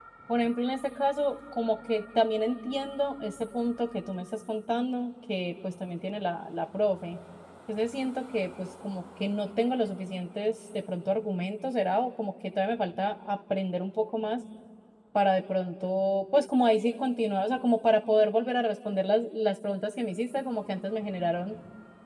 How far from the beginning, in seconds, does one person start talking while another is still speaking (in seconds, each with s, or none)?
none